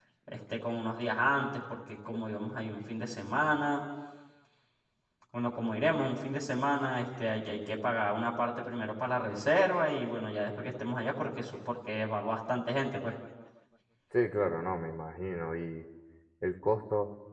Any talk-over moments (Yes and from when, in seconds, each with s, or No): No